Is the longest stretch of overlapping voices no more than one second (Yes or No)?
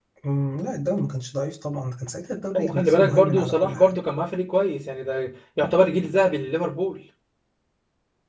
No